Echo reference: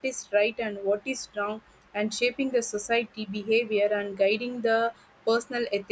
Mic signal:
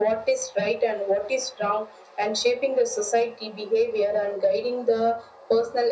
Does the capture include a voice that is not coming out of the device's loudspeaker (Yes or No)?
No